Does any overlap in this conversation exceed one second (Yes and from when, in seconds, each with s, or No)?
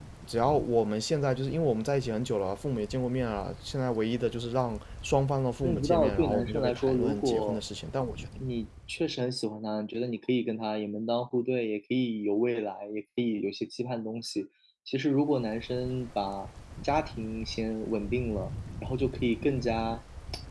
Yes, from 5.6 s